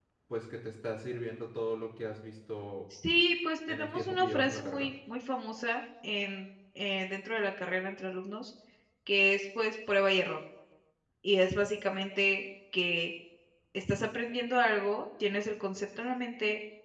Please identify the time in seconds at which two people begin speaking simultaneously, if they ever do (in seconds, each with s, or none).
3.7 s